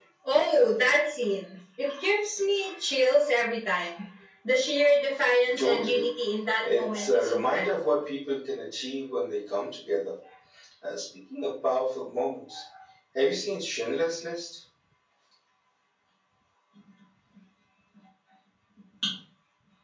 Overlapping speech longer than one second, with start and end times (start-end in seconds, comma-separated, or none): 6.7-7.9